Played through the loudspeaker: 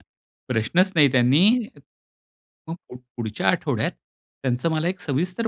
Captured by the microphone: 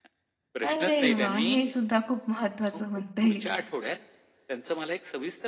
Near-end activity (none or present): present